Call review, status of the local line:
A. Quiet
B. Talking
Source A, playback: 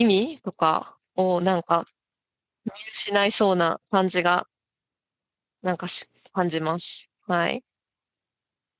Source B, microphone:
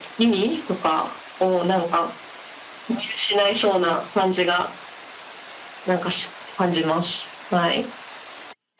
A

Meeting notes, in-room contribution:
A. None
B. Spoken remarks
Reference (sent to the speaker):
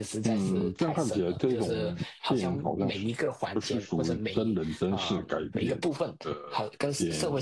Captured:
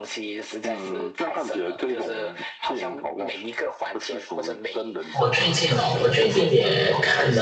B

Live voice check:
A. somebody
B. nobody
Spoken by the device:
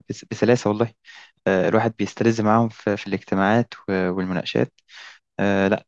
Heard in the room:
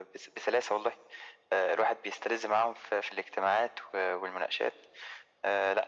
B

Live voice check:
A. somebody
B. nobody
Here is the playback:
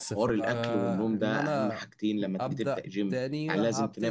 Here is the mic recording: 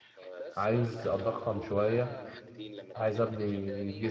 A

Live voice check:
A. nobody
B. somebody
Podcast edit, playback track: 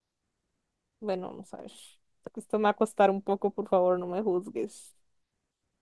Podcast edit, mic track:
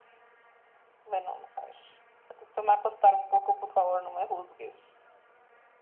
A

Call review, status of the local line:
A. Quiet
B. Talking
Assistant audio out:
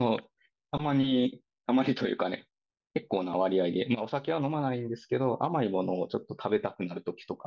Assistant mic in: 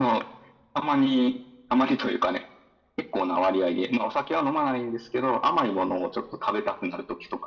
A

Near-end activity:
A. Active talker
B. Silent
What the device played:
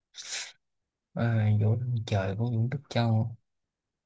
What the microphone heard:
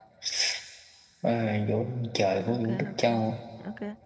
A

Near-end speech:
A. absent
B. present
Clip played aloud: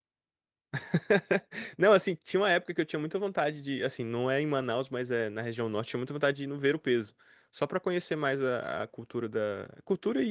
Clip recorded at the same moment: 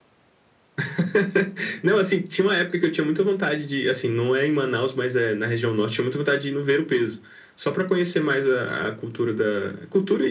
A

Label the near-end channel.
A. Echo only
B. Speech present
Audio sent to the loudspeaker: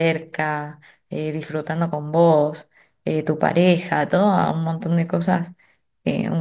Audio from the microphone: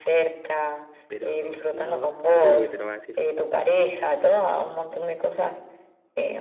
B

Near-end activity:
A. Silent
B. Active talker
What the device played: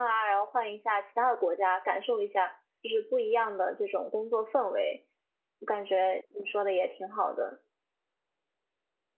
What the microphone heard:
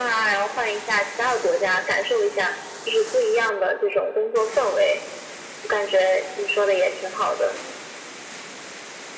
A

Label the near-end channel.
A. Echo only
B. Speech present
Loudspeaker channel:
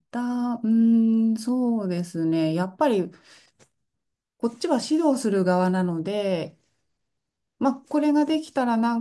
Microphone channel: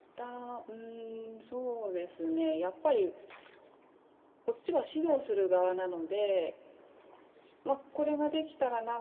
A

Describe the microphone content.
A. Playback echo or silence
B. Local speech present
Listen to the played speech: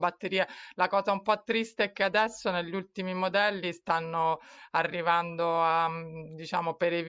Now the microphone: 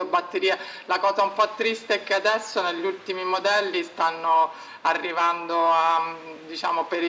A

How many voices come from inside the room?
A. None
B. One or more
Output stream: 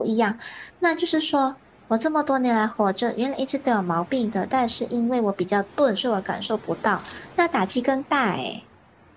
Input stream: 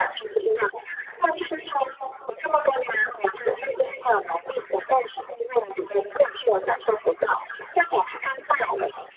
A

